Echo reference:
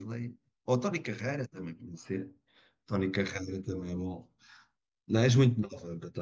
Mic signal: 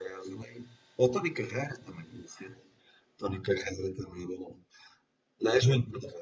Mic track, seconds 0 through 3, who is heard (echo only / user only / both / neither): echo only